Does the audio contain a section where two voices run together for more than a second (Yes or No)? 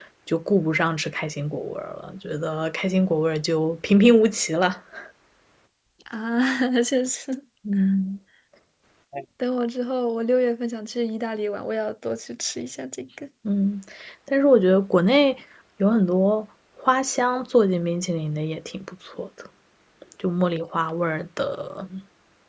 No